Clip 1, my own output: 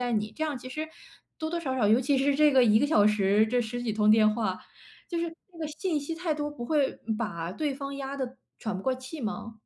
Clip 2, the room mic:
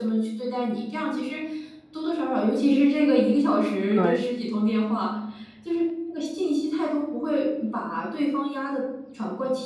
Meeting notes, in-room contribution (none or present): present